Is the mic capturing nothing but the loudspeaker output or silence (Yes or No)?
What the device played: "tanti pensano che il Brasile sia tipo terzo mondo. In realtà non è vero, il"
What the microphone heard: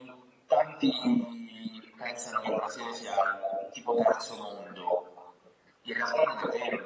Yes